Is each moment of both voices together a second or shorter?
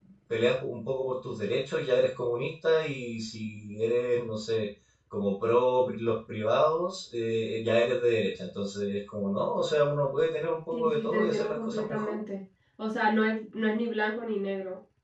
No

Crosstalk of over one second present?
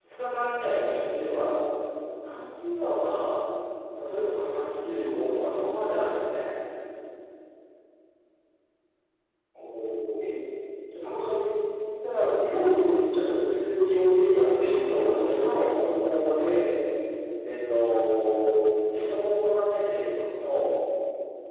Yes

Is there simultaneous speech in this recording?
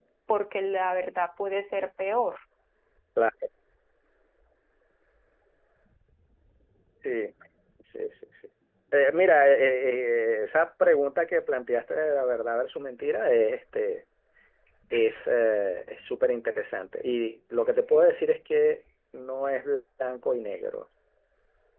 No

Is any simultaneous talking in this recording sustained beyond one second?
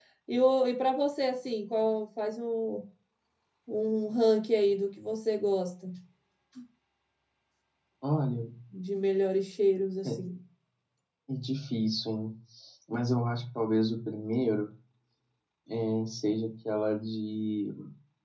No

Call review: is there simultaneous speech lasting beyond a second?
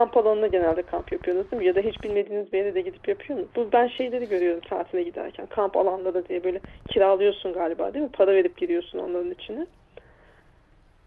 No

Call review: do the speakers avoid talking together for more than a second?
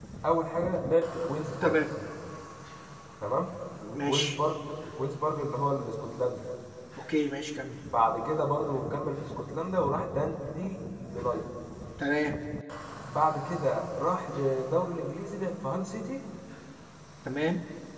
Yes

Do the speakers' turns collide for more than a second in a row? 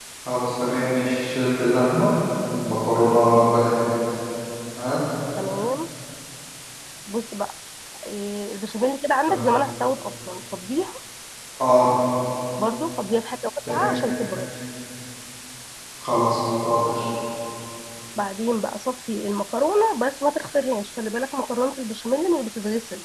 No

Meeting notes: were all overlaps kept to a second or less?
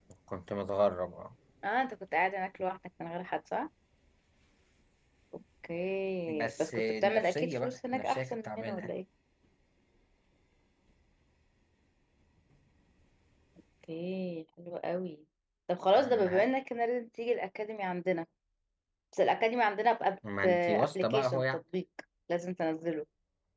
No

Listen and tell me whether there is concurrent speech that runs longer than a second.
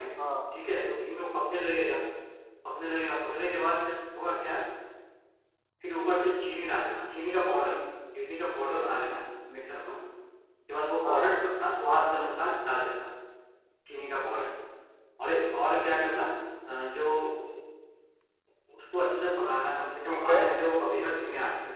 No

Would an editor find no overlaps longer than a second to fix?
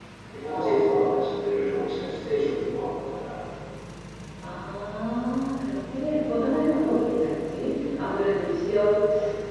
Yes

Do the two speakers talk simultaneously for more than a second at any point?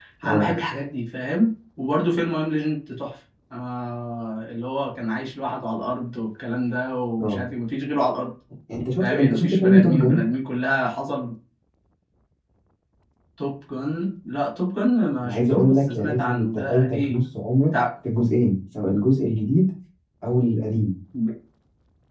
Yes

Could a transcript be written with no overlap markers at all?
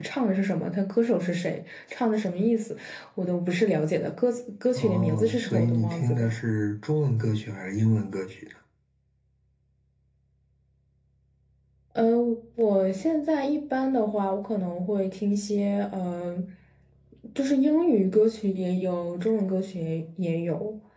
No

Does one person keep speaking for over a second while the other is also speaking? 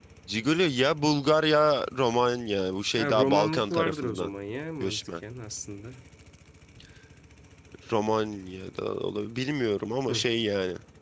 Yes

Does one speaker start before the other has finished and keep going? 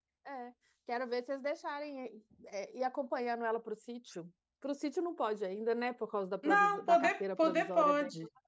Yes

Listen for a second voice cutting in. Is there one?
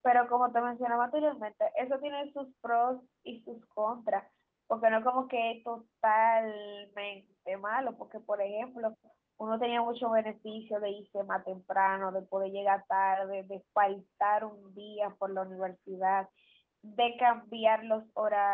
No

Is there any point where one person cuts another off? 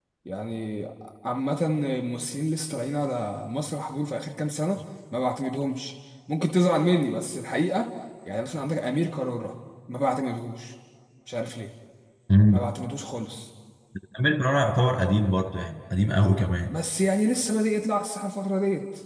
No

